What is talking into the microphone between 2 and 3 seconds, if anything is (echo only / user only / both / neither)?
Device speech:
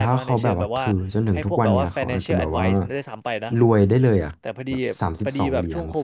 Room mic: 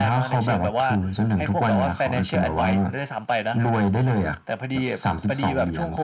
echo only